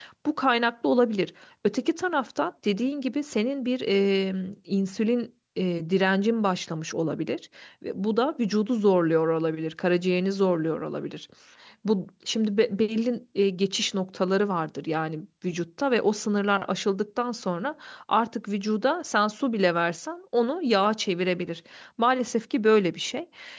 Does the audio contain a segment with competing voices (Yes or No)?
No